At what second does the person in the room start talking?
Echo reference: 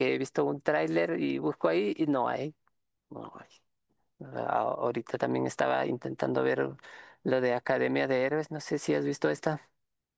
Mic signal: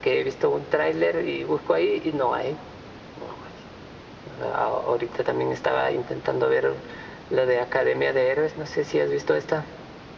none

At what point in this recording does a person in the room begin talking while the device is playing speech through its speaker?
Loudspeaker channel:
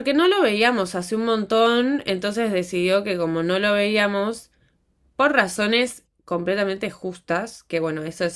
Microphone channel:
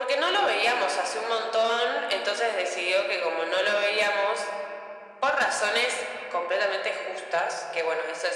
none

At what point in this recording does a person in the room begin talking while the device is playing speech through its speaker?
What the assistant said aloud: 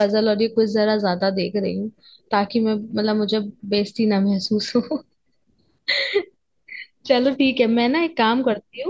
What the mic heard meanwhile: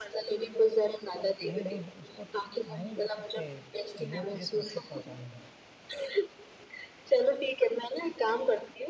1 s

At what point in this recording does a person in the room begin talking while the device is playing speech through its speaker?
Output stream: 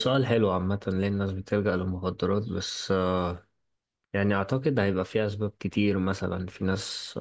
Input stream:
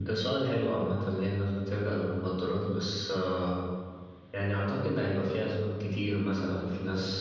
none

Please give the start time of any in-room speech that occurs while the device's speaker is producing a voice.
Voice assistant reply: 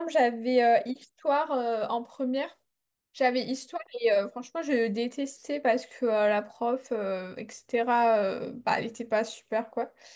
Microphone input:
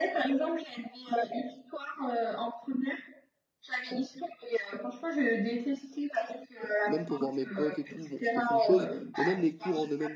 7 s

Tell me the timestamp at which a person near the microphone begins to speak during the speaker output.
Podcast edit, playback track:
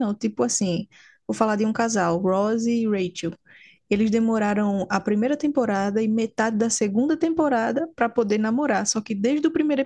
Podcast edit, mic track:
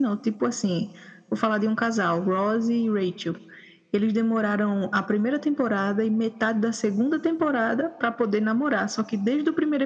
none

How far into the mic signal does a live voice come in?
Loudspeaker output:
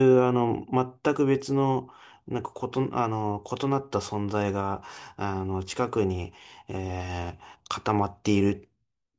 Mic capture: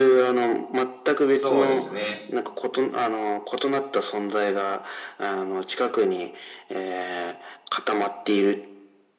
1 s

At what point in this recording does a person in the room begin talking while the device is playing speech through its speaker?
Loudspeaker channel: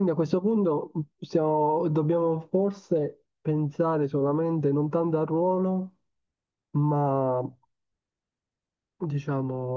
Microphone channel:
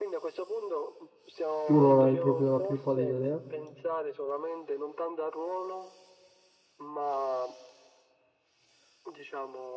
2 s

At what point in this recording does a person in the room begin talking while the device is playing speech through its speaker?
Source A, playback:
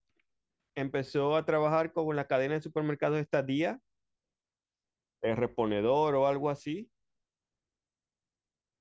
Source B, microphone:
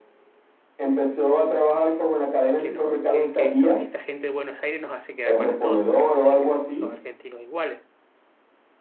3 s

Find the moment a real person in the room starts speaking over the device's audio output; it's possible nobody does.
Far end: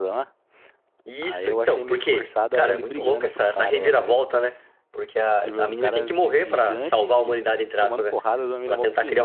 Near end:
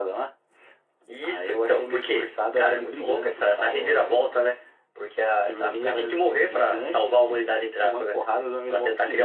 none

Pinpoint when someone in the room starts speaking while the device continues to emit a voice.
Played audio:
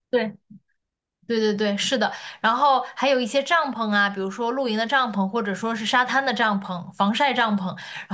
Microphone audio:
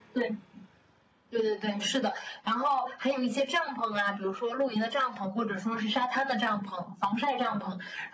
none

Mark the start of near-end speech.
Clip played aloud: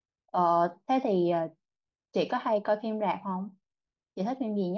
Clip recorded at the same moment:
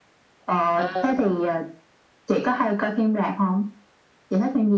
1 s

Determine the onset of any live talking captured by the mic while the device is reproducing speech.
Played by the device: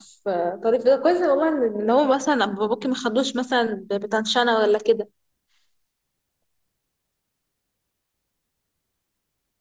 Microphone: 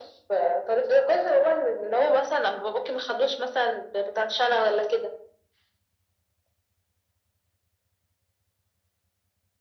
none

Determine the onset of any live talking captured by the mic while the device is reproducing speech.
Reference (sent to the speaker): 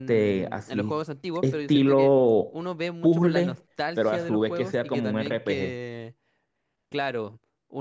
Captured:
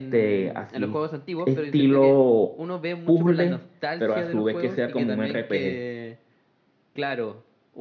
none

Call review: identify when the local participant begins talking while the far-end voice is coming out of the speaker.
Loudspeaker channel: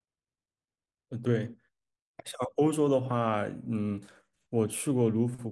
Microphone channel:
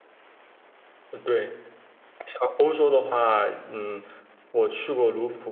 none

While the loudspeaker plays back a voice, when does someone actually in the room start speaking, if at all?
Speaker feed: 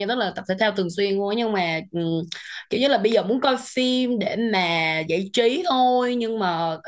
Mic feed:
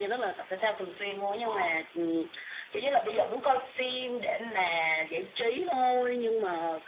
1 s

